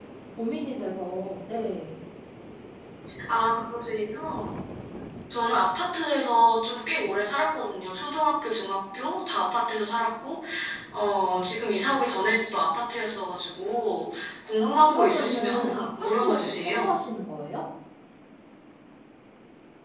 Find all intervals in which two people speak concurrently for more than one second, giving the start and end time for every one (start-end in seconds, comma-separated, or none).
14.6-16.9